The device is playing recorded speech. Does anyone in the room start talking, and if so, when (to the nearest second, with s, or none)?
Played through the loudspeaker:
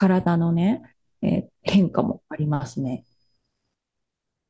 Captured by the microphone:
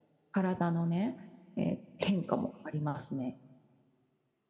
none